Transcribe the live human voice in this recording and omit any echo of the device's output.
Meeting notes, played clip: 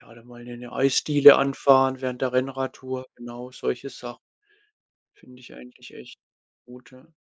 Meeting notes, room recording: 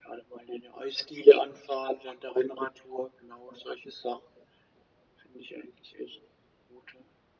none

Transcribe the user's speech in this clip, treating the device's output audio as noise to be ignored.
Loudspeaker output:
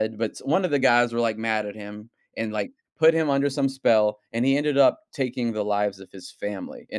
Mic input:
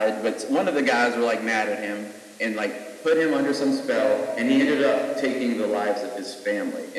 none

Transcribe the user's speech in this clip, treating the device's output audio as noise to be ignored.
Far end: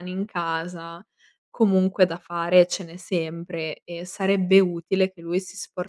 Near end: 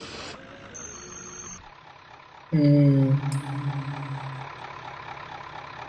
Mh.

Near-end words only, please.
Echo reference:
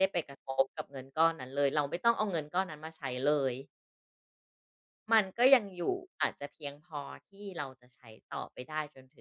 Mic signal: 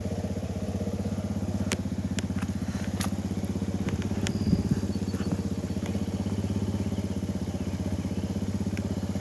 none

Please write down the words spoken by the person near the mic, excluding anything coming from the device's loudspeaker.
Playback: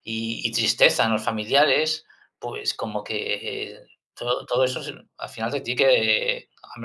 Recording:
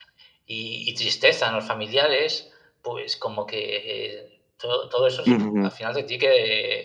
Ujú.

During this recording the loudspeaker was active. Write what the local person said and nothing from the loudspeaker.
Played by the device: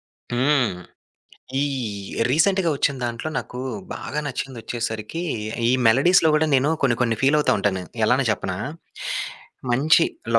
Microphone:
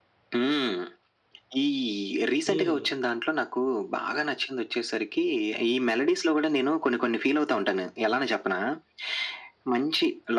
హ్మ్.

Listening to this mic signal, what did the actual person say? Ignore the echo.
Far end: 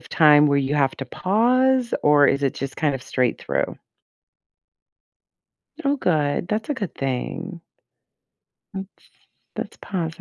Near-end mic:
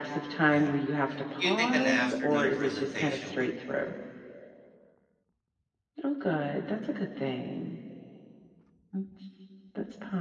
Yeah. Do you think an afternoon presentation would

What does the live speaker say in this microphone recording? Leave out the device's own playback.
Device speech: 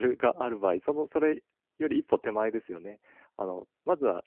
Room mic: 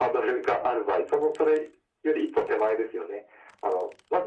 none

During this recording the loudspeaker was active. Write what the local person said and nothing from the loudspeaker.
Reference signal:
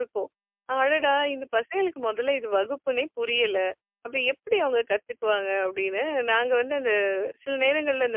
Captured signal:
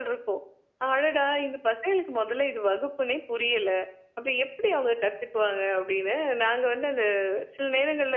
none

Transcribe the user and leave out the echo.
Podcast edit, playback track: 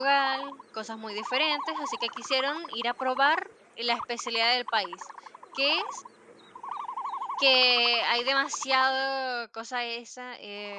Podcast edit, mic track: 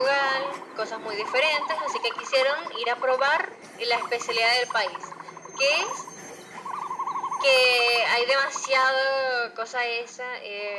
none

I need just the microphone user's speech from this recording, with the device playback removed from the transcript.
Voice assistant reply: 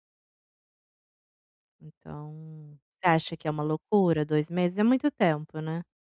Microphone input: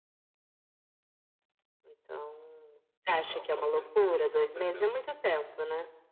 Não, com certeza, com certeza.

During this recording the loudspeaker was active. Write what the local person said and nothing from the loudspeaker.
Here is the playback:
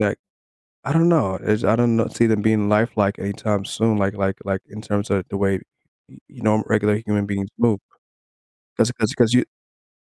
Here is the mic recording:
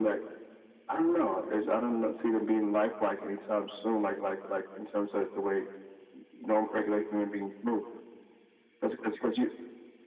none

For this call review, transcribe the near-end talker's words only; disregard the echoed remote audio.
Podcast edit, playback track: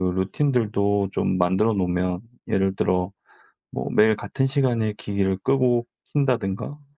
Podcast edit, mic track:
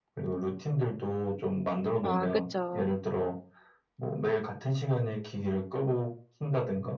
아 그쵸.

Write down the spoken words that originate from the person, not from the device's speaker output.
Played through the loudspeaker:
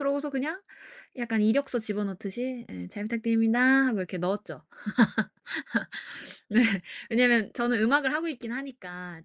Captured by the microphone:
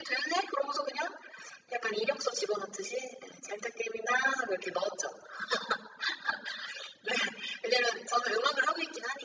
none

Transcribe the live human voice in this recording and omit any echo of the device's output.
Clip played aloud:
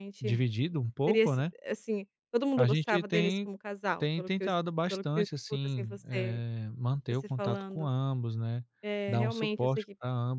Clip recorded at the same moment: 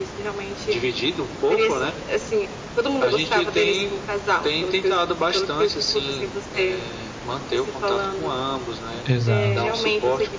Exato.

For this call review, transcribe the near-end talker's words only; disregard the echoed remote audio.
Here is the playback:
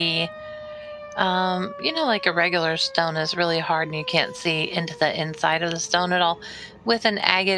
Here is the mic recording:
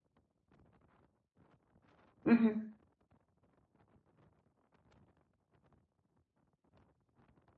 hmm

